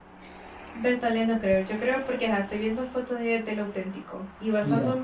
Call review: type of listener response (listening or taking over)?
listening